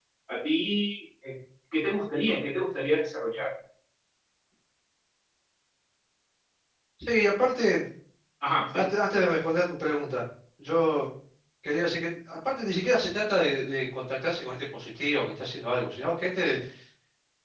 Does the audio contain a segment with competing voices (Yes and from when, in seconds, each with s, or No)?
No